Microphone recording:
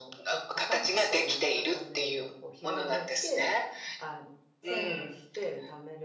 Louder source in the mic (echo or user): echo